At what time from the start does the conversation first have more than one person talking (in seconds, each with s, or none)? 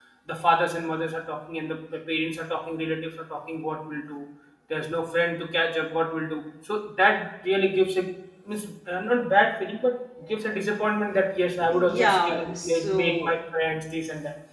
11.7 s